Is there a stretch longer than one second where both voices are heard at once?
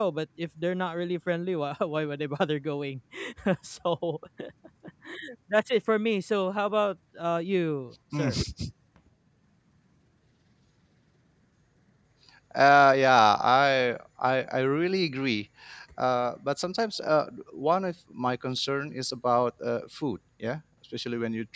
No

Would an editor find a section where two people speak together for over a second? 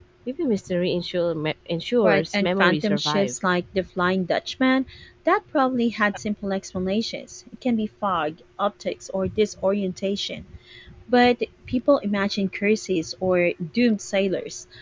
Yes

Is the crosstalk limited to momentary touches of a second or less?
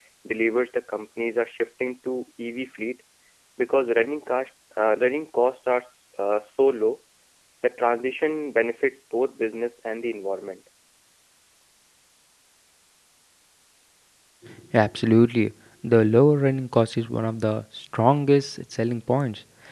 Yes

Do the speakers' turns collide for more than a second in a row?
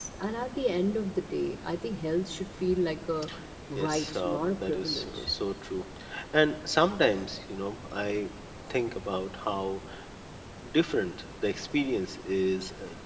Yes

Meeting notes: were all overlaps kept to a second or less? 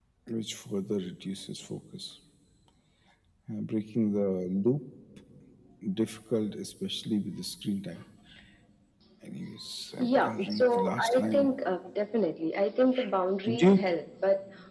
No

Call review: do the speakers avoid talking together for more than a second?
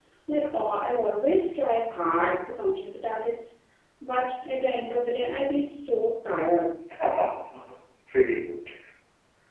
Yes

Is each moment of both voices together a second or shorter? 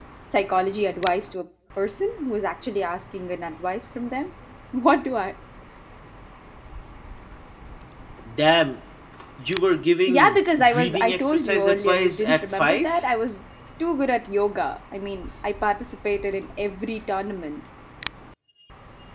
No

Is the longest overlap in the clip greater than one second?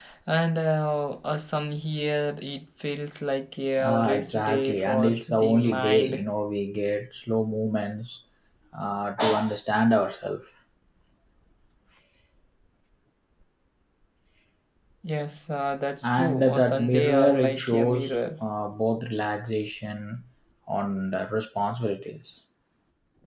Yes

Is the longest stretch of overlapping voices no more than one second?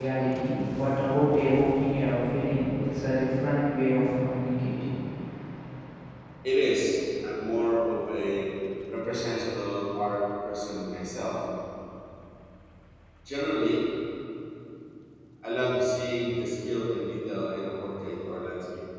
Yes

